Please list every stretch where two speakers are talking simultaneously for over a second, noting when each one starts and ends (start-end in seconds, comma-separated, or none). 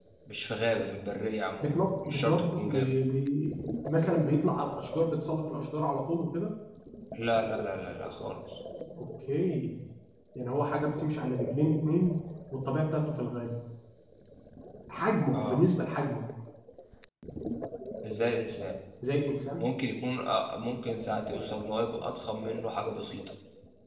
1.6-2.9